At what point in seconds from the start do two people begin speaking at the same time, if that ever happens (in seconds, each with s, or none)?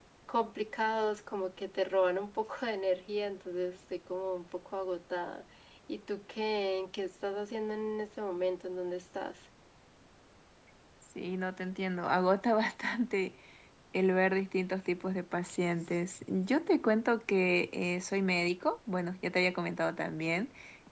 none